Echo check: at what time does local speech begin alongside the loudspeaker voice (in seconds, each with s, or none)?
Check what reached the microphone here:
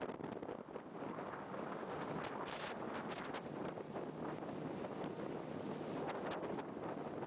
none